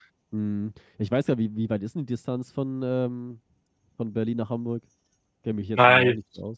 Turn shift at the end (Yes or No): Yes